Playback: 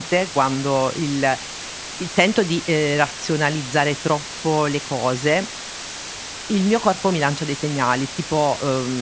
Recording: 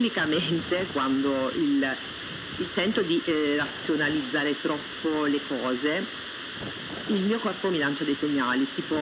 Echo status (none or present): present